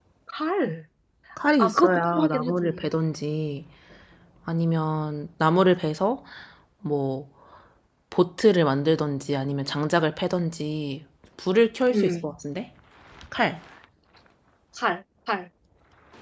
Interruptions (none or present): present